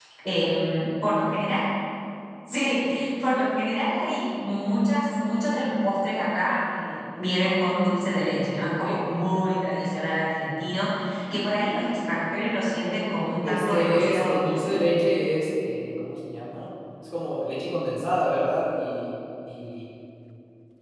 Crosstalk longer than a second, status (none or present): present